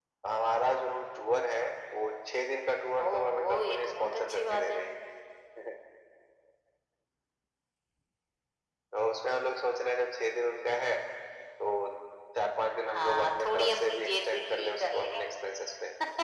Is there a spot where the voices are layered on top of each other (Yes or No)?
Yes